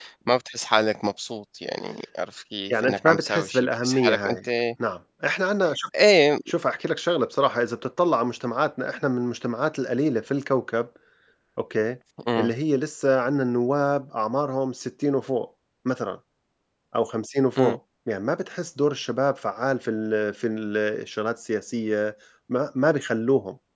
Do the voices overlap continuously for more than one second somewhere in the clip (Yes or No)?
Yes